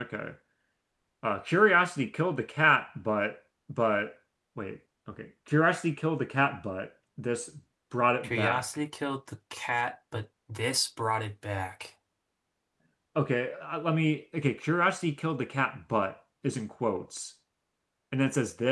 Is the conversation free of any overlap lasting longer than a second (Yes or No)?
Yes